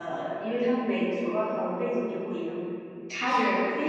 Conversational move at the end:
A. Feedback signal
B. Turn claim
A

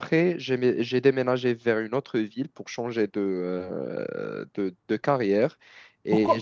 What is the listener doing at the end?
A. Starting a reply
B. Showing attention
A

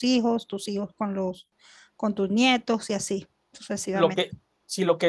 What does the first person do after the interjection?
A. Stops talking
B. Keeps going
A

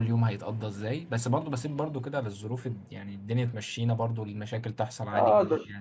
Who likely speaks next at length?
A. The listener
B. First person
A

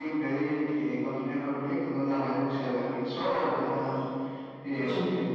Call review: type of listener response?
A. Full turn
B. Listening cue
B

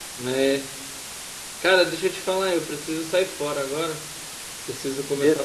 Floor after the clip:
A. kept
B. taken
A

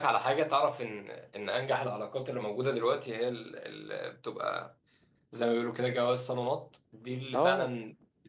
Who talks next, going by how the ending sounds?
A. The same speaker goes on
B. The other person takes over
A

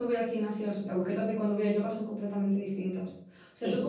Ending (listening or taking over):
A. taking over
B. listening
B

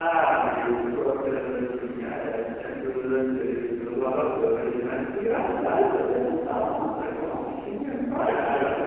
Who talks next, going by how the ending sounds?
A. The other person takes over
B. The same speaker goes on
B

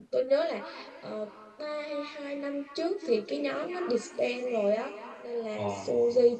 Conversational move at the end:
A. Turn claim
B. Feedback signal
B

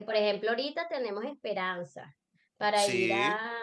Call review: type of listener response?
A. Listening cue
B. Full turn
A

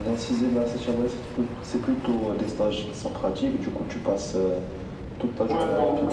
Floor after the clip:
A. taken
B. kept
A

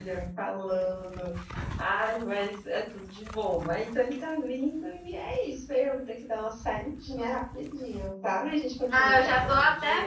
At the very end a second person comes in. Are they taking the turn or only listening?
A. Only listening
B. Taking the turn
B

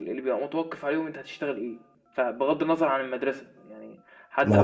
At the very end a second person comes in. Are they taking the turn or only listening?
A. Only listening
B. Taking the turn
A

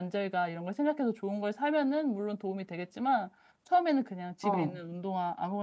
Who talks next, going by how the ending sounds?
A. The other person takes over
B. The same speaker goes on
B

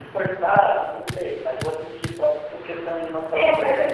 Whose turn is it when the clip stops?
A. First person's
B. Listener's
B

